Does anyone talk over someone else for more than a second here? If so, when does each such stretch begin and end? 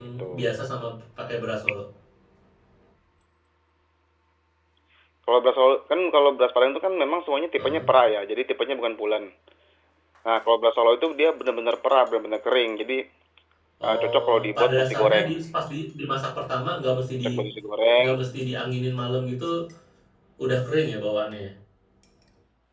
13.9-15.3

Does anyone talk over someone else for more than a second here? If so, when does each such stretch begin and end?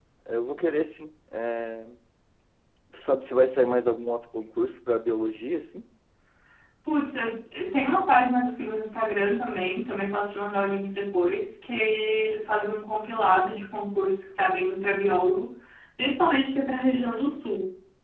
none

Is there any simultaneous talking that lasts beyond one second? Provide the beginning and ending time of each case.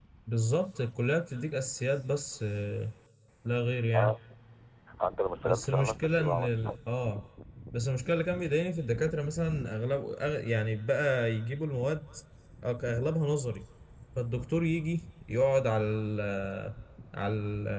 5.4-6.8

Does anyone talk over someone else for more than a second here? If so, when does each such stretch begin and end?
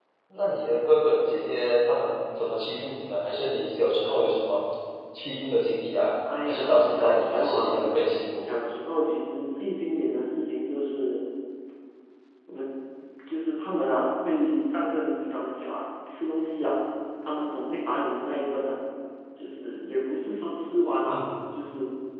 6.4-7.8

